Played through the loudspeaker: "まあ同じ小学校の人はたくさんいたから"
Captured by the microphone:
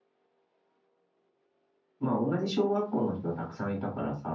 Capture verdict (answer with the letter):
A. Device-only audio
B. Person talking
A